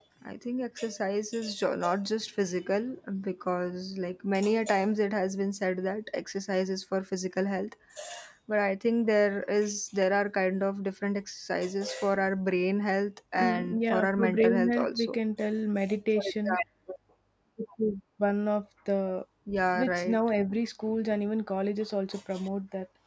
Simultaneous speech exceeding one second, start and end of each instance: 13.3-15.2

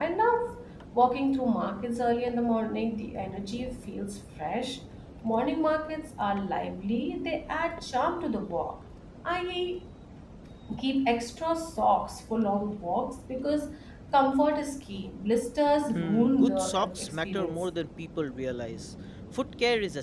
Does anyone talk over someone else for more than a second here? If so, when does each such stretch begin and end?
15.9-17.6

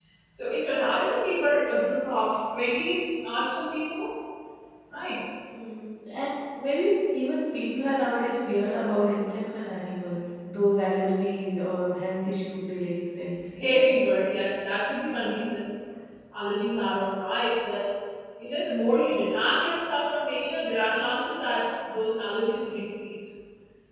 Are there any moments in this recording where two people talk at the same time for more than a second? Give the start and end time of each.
none

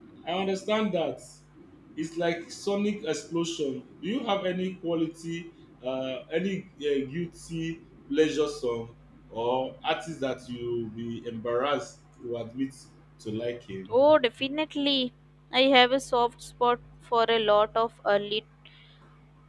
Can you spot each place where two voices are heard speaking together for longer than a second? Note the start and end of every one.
none

